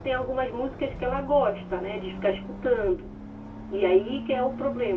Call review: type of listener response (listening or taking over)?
listening